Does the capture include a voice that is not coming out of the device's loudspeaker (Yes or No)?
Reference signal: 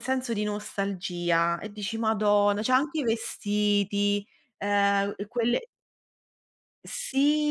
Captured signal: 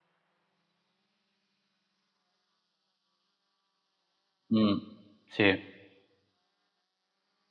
Yes